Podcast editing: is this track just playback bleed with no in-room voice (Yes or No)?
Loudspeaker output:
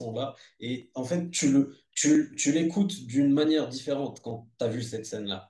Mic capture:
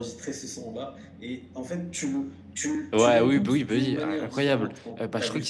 No